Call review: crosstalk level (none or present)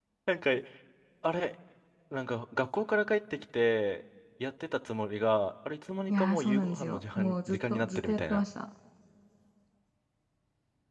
present